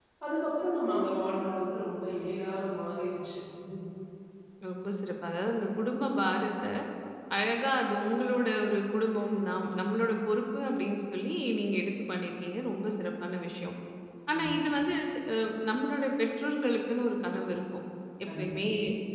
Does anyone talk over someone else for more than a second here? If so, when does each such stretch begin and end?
none

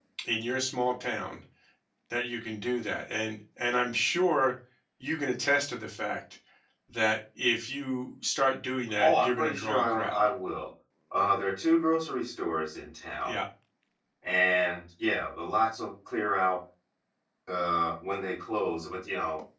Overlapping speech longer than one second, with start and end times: 9.0-10.3

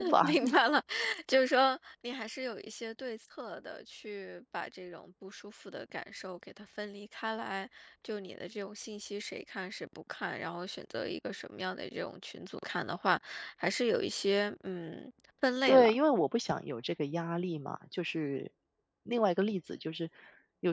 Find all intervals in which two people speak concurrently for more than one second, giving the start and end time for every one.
none

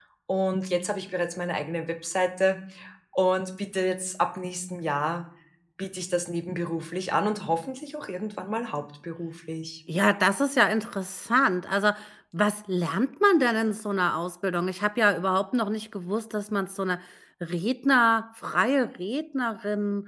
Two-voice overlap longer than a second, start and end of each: none

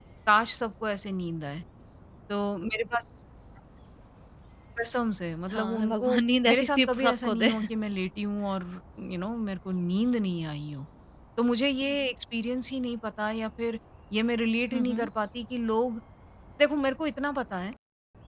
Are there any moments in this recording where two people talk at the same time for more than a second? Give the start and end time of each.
5.5-7.5

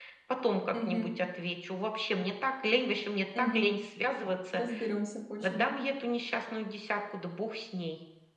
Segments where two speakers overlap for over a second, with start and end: none

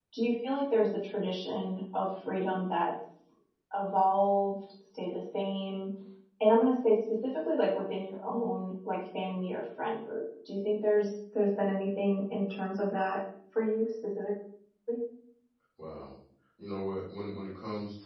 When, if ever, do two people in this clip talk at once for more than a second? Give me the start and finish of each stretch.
none

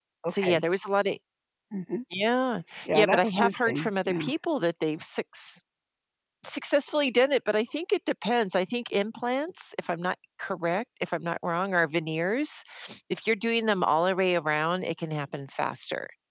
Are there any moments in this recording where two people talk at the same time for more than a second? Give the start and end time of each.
2.9-4.3

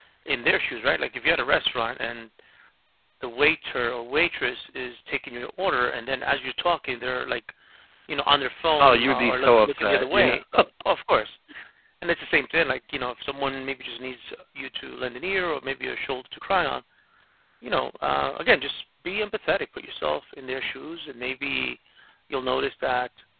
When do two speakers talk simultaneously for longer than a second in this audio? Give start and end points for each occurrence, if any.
8.8-10.4

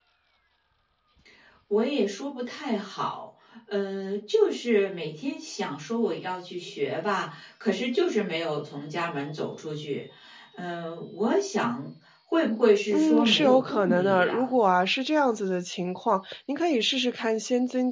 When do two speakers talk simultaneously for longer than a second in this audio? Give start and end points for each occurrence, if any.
12.9-14.5

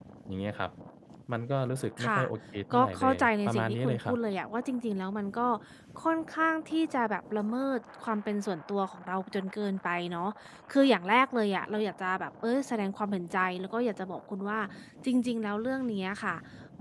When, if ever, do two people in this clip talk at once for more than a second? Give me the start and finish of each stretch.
2.7-4.2

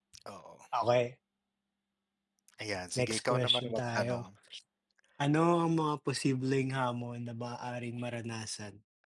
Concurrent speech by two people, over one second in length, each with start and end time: 3.0-4.2

